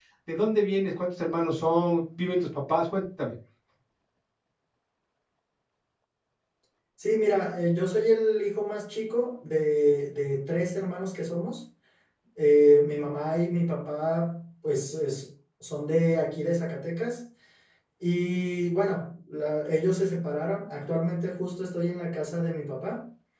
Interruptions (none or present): none